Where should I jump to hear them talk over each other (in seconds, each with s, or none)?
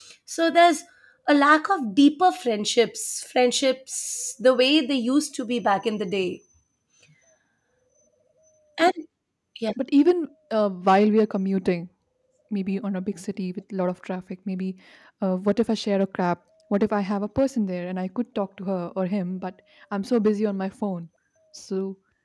none